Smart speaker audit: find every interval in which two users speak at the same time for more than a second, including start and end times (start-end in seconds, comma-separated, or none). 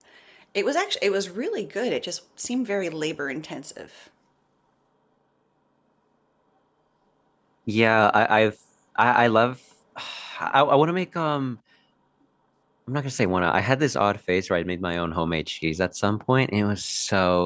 none